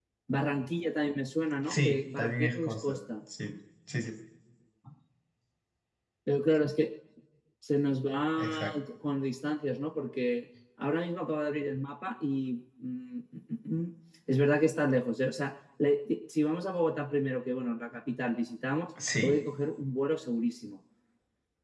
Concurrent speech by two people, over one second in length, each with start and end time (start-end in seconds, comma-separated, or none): 1.6-3.0